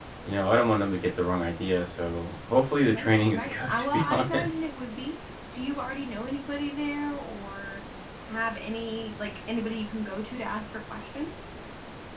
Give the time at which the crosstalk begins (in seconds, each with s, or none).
2.9 s